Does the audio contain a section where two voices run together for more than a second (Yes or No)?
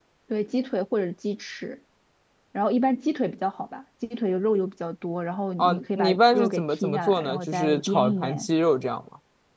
Yes